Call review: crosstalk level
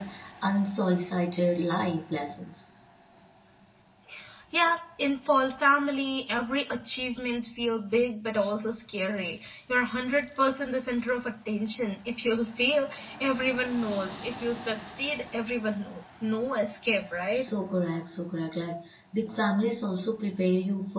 none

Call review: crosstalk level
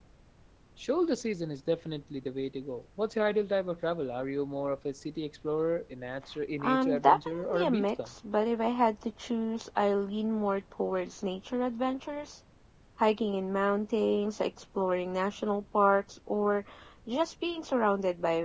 present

